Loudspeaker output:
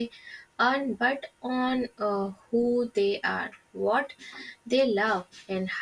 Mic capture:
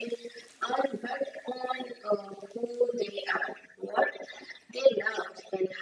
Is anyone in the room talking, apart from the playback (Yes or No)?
No